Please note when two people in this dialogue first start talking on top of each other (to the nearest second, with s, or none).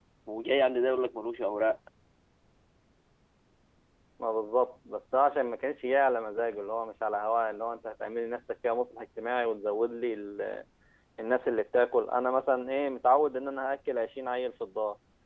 none